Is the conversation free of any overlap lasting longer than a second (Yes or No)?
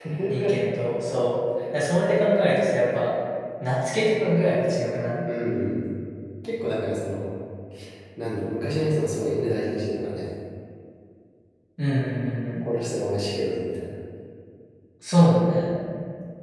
Yes